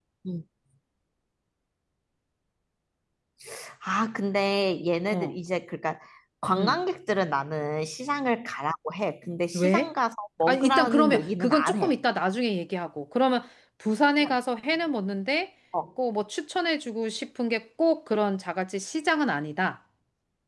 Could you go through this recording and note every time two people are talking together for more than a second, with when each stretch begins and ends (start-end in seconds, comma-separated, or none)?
10.5-11.9